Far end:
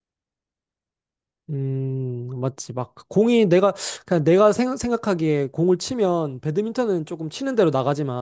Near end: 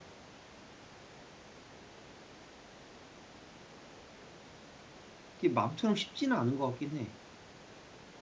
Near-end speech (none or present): present